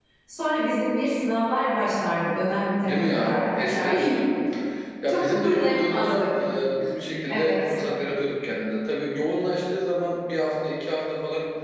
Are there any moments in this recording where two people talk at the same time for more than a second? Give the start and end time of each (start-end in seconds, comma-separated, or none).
2.8-4.1, 5.1-6.3